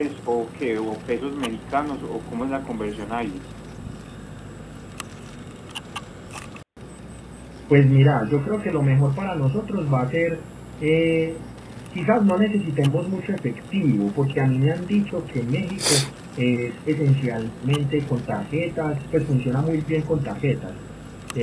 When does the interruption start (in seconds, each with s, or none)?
none